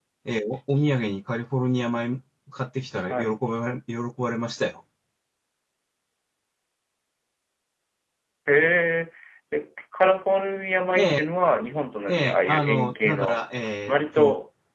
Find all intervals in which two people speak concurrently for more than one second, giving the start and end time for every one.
12.1-13.4

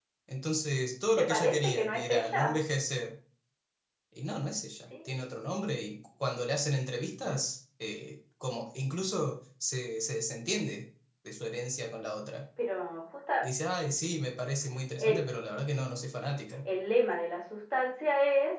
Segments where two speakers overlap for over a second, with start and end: 1.2-2.6

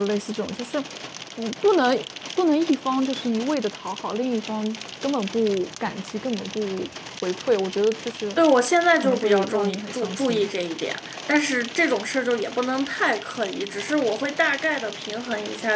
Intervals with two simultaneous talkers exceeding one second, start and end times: 9.0-10.5

